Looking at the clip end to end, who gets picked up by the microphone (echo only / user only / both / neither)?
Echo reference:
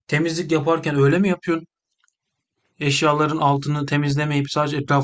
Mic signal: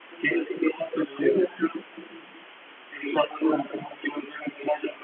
echo only